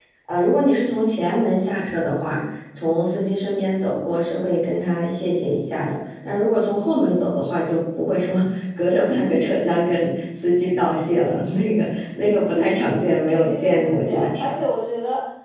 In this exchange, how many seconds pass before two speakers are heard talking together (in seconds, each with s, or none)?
13.3 s